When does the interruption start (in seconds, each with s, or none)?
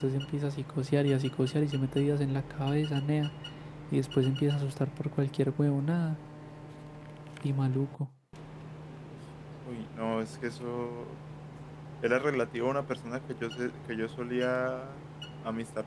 none